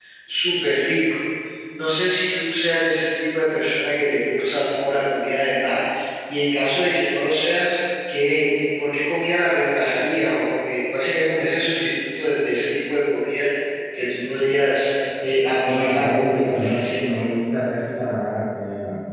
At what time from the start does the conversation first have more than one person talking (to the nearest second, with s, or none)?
16 s